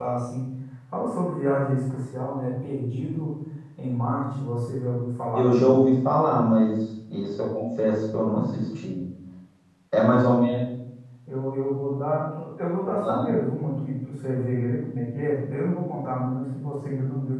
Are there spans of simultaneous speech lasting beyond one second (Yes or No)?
No